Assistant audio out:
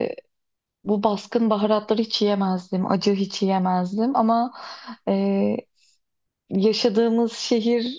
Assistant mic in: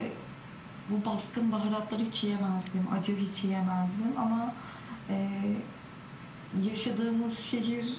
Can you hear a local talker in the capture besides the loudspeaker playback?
No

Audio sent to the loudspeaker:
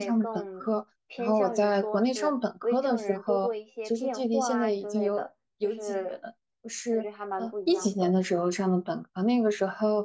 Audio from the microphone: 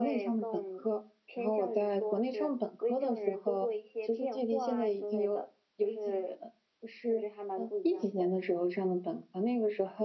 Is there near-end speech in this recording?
No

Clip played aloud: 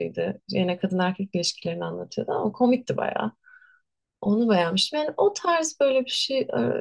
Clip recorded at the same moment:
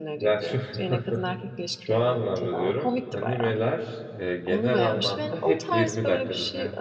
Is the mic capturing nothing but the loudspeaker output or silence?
No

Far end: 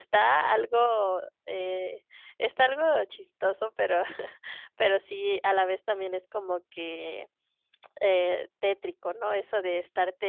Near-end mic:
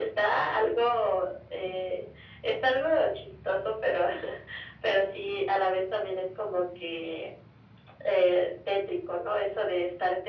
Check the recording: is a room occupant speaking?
No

